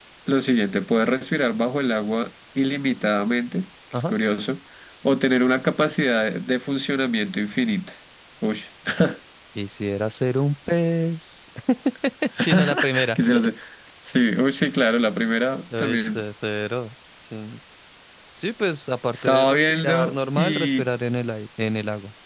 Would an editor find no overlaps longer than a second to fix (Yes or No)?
No